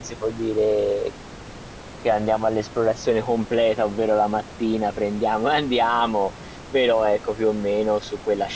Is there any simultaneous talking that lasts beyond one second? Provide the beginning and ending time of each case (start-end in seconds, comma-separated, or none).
none